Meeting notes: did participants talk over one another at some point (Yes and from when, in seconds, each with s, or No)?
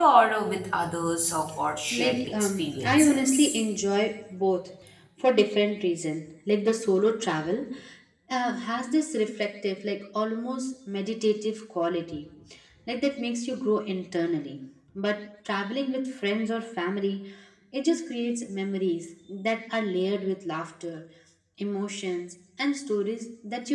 Yes, from 1.9 s